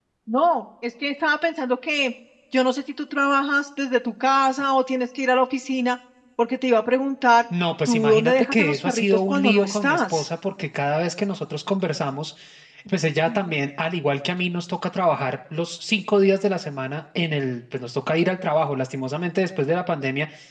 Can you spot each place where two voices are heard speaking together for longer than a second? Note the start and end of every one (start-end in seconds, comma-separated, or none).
7.9-10.3